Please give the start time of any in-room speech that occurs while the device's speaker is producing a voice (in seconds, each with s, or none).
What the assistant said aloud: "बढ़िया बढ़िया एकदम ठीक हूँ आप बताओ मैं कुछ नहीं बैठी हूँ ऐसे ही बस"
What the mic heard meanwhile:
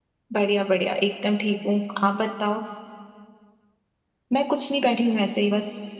none